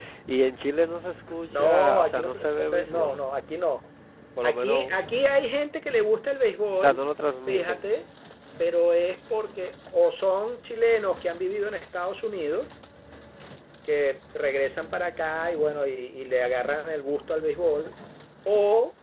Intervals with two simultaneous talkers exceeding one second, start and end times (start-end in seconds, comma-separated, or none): 1.5-3.1